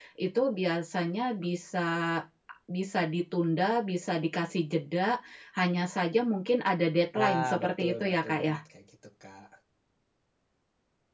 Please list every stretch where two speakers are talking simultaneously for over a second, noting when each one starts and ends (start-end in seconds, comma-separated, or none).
7.2-8.6